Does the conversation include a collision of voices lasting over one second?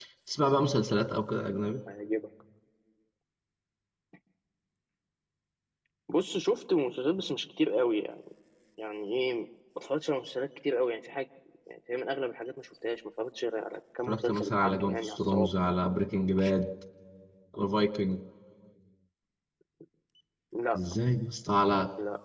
Yes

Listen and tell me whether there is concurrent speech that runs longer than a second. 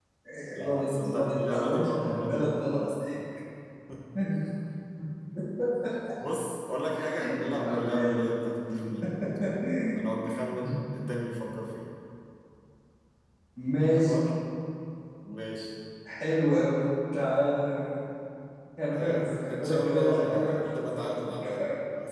Yes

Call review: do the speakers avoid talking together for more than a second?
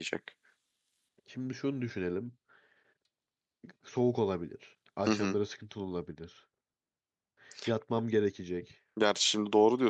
Yes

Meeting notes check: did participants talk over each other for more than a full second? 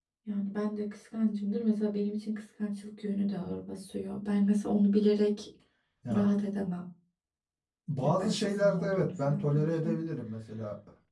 Yes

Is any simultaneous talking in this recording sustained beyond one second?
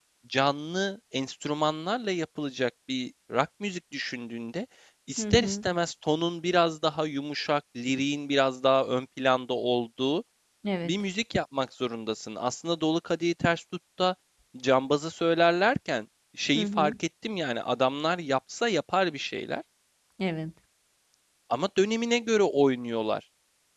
No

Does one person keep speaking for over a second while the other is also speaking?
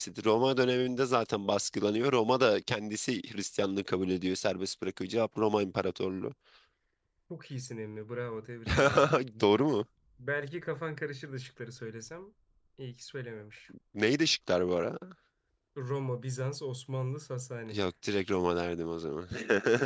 No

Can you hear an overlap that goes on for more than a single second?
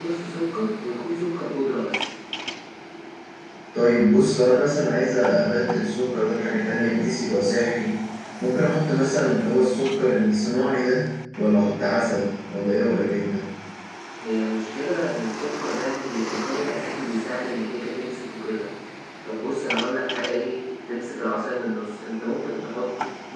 No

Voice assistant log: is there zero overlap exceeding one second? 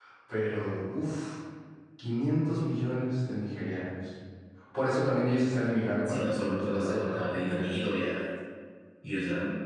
No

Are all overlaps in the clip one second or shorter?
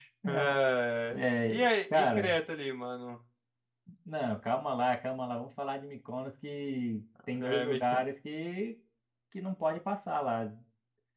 No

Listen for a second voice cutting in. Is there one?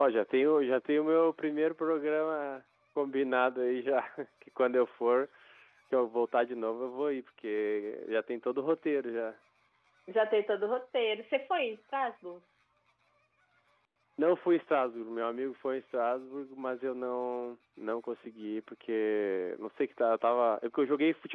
No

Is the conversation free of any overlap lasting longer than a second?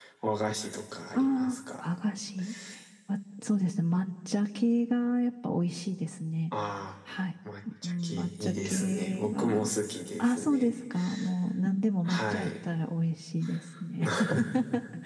No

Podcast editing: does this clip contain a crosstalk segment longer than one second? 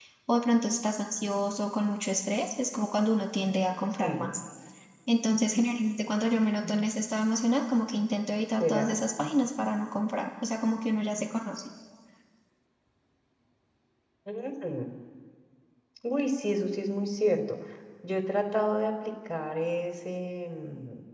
No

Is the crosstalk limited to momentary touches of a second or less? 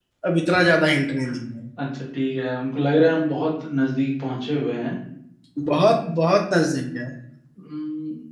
Yes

